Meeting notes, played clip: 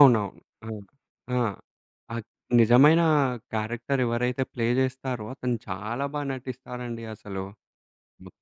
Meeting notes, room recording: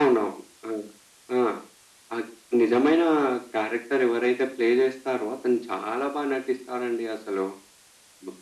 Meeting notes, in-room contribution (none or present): none